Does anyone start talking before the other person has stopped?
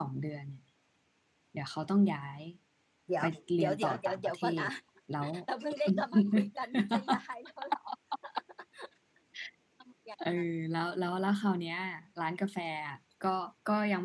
Yes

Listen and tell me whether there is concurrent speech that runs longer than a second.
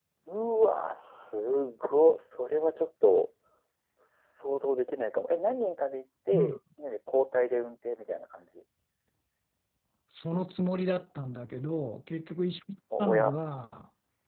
No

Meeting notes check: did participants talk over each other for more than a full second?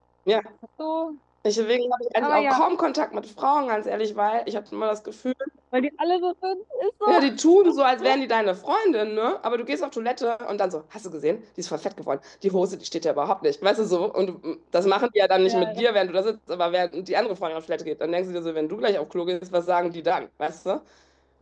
No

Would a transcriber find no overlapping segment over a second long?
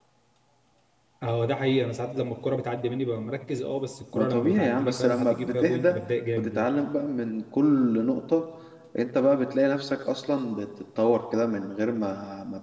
No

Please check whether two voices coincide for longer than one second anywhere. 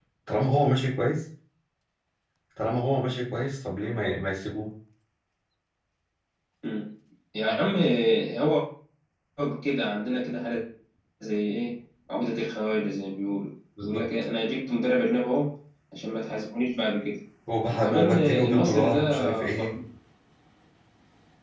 Yes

